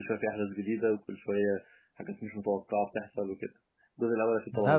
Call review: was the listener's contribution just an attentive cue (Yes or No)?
No